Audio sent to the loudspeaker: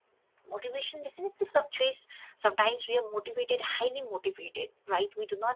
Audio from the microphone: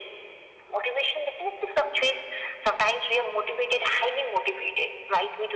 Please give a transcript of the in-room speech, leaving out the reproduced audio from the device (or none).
none